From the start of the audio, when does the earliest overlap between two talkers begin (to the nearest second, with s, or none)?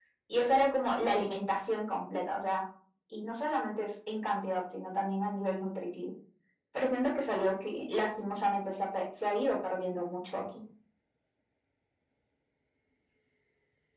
none